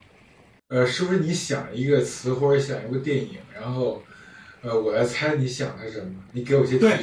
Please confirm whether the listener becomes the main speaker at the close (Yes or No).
Yes